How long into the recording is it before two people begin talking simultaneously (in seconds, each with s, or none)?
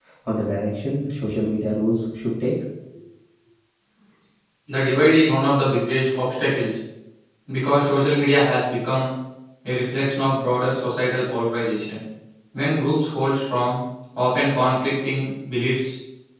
none